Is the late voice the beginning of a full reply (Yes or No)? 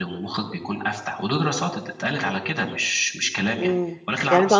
Yes